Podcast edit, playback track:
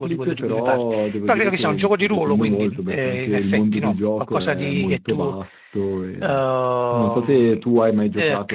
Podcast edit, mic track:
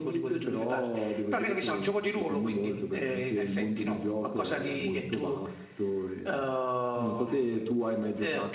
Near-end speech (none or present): none